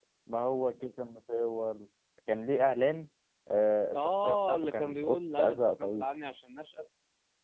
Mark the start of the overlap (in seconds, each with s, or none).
3.9 s